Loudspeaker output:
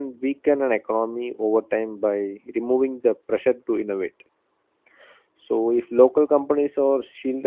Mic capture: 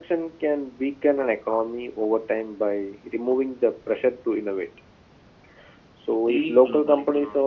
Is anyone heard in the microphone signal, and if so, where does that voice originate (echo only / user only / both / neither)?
both